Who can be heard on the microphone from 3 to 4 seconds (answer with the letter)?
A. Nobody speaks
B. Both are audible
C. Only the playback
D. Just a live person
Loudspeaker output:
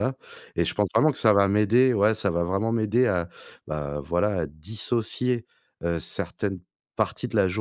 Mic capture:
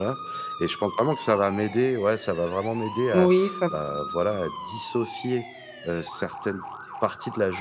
B